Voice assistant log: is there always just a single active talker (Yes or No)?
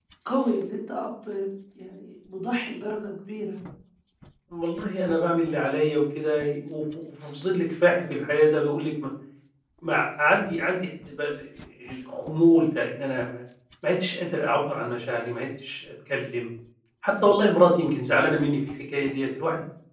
Yes